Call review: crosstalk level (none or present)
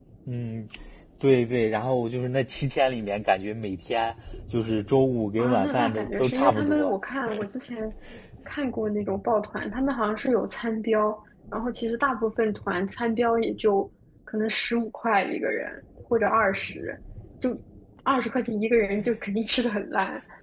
present